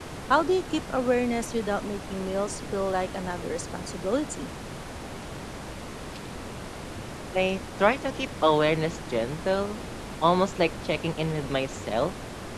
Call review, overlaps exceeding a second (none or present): none